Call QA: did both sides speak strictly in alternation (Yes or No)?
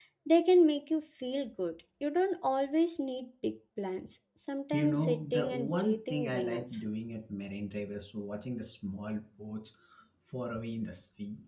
No